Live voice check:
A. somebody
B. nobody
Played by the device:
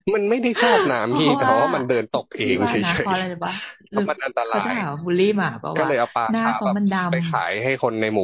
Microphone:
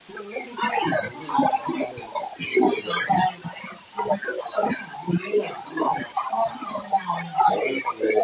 B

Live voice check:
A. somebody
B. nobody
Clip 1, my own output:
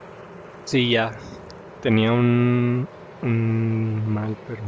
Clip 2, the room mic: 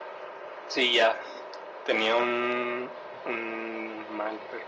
B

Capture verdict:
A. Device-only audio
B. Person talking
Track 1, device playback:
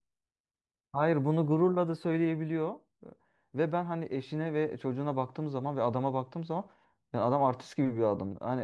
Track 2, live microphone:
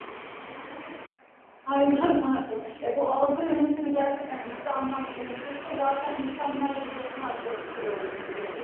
B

